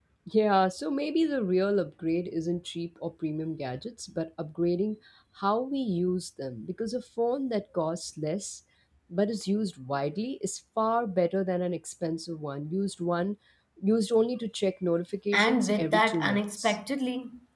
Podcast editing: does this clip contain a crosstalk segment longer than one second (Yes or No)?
Yes